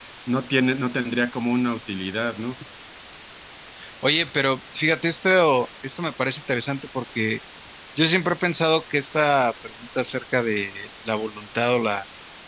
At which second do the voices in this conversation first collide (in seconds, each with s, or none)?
none